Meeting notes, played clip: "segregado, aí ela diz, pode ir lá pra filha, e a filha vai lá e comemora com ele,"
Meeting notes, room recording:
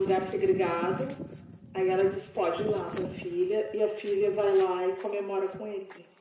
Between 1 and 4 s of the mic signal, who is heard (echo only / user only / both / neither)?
echo only